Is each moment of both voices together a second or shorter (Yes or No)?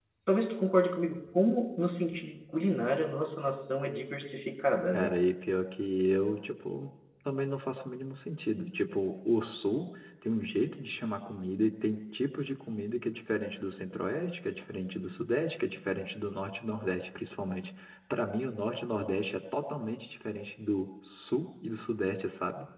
Yes